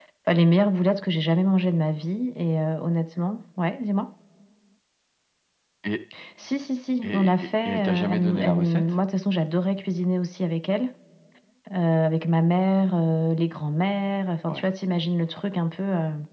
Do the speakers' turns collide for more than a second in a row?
Yes, from 7.0 s

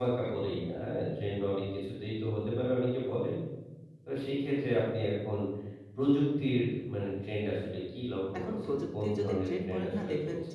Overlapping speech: Yes, from 8.3 s

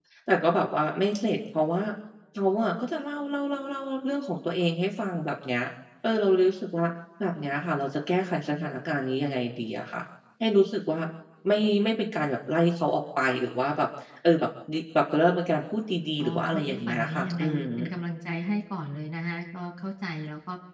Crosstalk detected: Yes, from 16.2 s

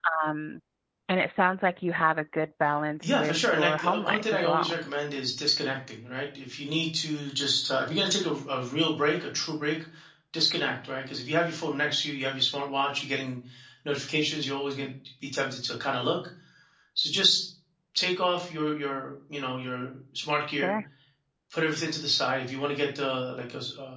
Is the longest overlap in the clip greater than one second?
Yes, from 3.0 s

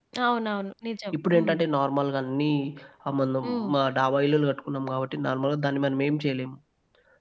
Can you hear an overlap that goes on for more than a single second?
No

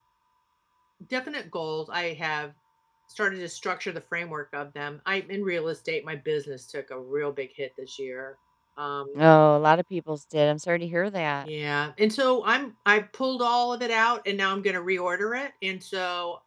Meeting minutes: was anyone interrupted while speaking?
No

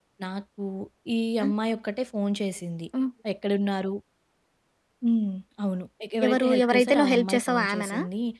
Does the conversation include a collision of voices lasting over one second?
Yes, from 6.2 s

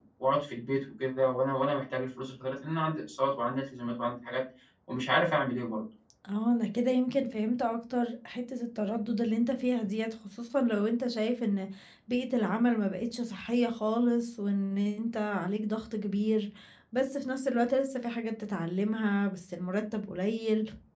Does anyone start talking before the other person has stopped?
No

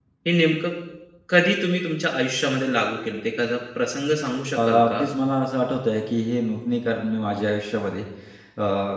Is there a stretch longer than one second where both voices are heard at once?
No

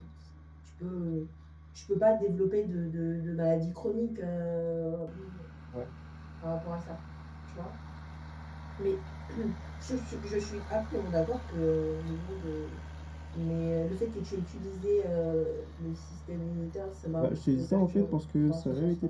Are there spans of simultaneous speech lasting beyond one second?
Yes, from 17.2 s

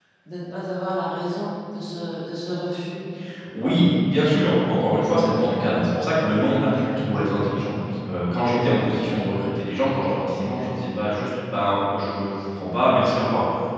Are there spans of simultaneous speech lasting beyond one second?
No

